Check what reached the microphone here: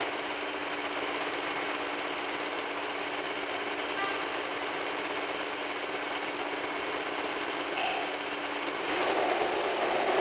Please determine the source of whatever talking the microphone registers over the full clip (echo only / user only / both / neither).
neither